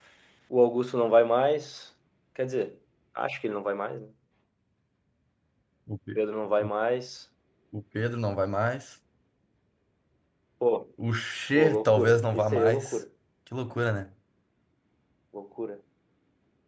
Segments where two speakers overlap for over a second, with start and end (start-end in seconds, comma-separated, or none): 11.5-13.0